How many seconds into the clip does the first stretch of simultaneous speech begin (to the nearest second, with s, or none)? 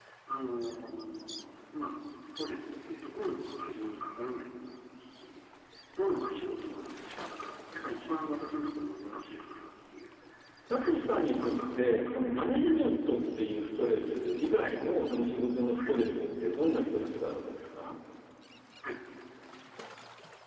11 s